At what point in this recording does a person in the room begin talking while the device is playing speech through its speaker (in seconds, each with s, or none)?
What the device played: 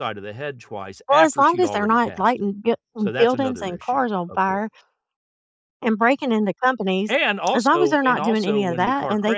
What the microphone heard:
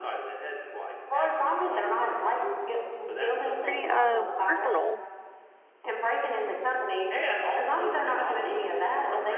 3.6 s